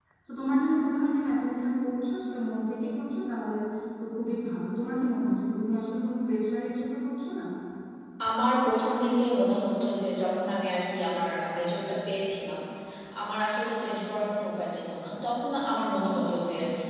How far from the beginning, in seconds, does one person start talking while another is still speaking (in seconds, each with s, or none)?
none